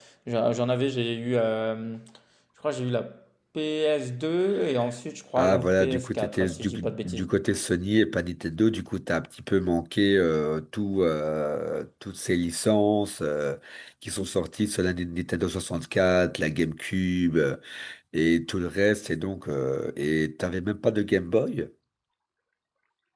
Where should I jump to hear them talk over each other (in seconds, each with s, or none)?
5.4 s